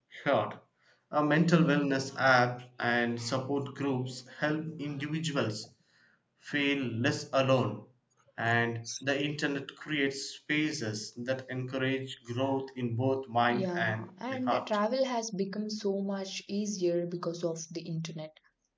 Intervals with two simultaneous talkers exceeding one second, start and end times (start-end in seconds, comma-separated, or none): 13.5-14.8